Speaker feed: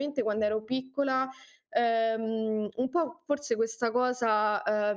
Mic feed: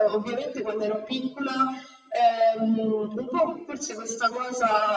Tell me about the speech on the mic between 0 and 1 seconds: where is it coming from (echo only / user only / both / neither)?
echo only